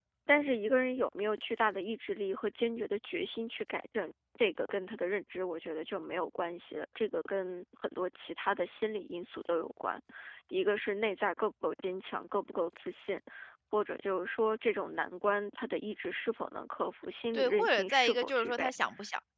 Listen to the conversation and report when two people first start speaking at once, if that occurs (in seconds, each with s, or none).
17.3 s